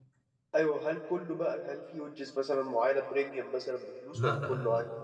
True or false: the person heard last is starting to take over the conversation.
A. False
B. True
B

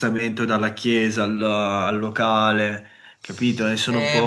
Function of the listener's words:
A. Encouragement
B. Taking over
B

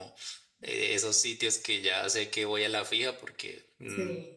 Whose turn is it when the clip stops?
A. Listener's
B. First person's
B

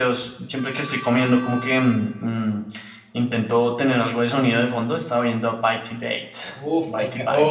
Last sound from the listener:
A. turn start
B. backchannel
A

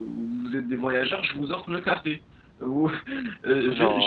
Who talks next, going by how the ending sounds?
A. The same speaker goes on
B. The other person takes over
A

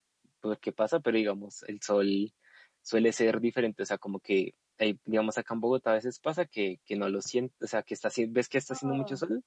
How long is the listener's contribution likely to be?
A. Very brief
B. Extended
A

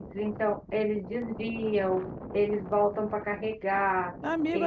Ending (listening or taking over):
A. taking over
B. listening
A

